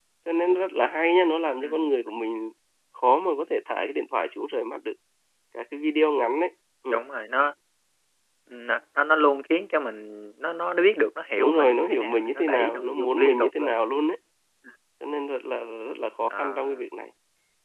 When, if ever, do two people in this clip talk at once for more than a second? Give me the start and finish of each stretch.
11.4-13.8

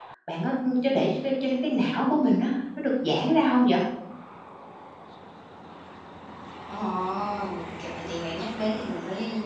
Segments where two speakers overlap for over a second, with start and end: none

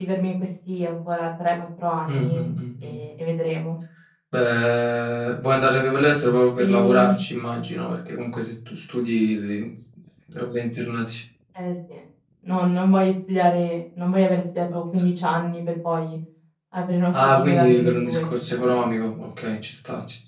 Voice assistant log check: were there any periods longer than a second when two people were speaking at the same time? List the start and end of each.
17.1-18.8

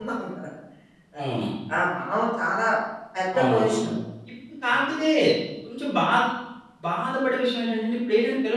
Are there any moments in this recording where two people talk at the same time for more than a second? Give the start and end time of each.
none

